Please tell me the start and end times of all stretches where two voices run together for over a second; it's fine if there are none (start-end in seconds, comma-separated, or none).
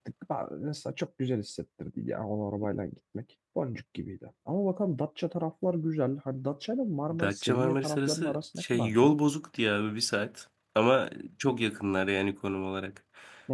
7.1-9.2